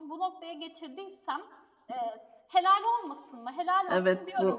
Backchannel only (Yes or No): No